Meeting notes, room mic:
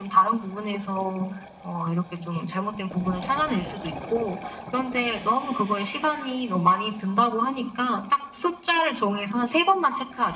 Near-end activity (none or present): none